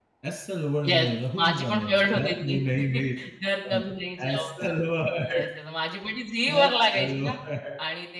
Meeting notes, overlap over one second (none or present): present